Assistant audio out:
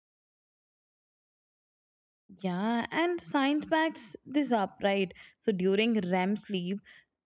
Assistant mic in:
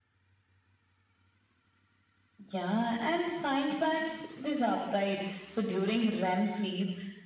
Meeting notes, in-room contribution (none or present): none